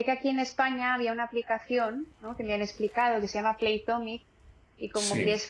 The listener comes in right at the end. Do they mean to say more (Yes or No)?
No